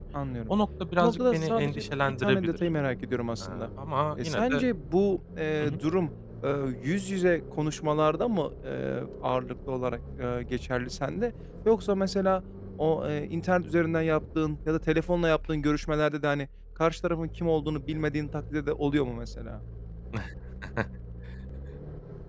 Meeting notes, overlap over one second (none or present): present